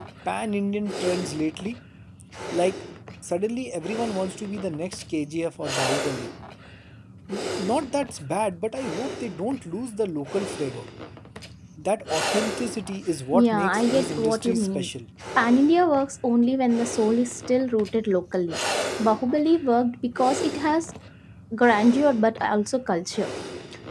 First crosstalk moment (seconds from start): 13.3 s

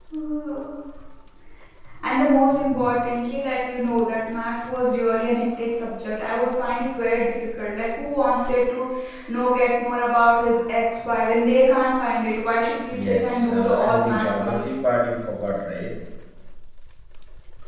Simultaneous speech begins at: 12.9 s

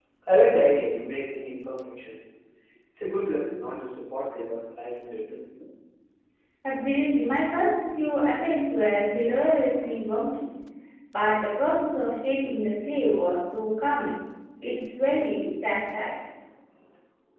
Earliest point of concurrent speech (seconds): none

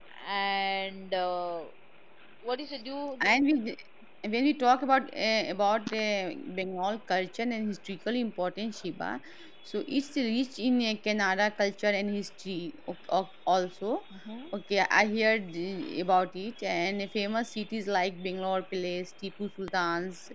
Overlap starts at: none

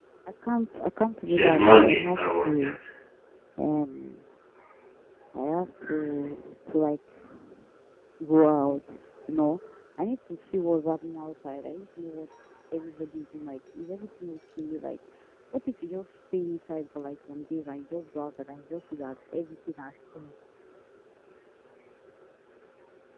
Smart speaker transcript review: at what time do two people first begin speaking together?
1.3 s

